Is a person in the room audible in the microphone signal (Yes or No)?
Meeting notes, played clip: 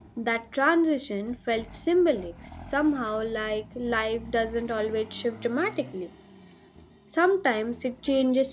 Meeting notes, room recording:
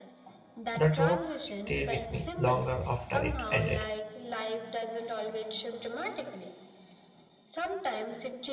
Yes